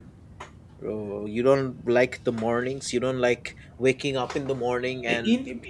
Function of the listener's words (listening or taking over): taking over